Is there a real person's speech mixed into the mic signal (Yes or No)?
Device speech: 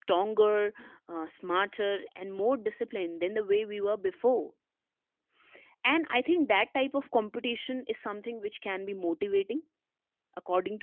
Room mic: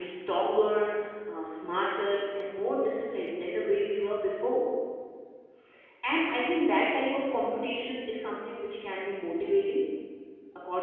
No